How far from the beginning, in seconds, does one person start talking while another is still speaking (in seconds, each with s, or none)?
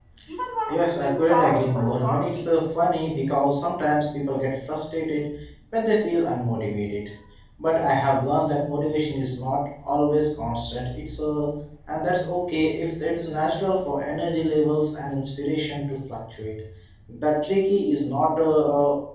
0.7 s